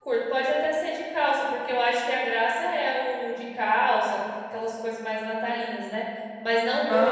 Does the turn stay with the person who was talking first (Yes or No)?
Yes